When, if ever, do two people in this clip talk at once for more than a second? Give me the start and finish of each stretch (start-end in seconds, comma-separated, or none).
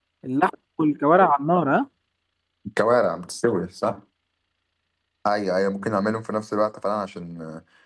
none